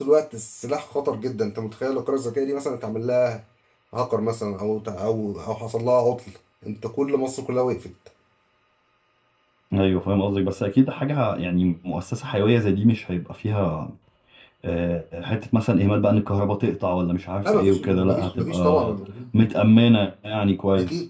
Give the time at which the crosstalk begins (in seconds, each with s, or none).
17.4 s